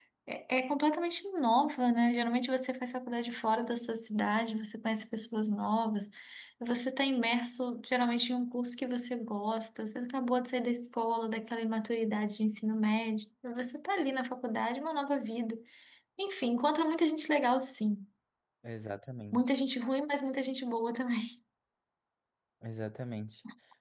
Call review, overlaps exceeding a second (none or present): none